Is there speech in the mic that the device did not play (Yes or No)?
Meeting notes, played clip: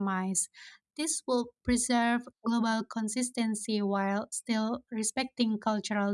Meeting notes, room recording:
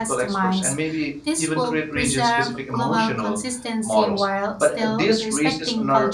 Yes